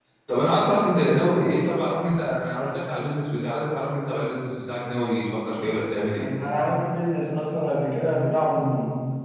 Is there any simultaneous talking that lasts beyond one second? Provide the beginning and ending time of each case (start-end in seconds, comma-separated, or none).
none